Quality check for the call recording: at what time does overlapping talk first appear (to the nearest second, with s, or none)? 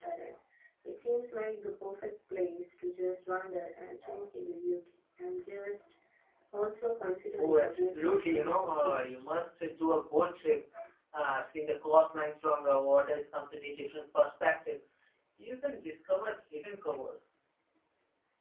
7 s